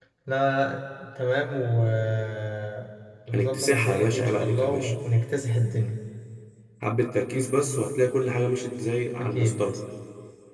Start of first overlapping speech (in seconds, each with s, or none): 3.3 s